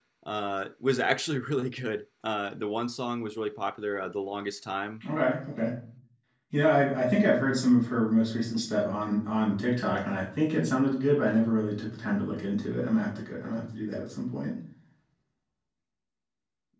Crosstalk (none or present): none